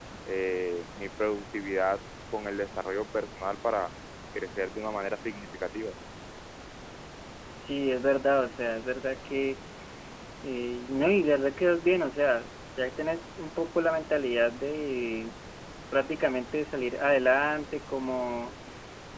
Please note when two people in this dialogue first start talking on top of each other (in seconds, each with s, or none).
none